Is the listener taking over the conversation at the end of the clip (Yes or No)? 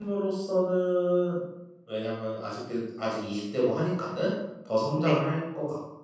No